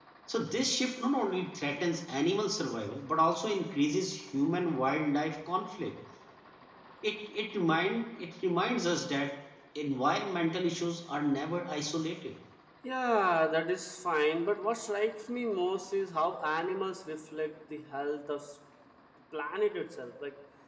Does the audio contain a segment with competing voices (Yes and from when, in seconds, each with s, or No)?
No